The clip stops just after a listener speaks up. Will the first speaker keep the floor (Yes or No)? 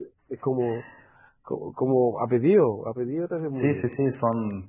No